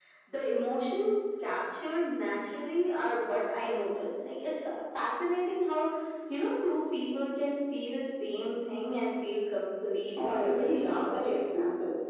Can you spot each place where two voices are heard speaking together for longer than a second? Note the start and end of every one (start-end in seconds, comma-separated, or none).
10.2-11.4